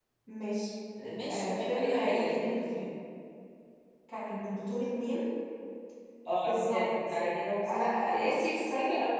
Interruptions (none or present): present